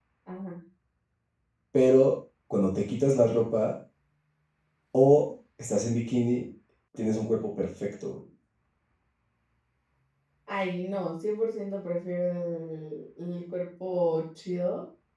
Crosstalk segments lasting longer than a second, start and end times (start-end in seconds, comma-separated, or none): none